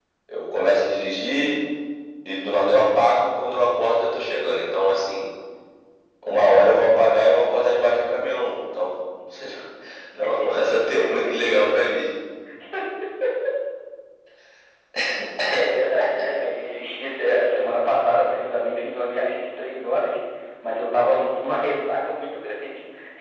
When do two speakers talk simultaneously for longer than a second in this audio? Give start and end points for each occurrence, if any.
none

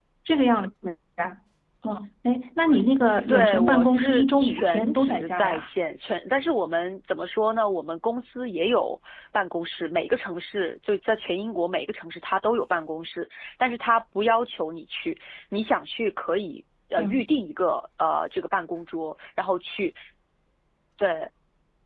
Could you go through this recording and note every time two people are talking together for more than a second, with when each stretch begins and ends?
3.3-5.7

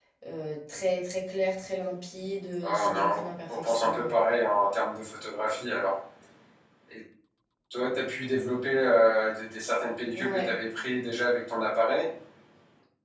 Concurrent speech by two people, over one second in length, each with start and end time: 2.6-4.1

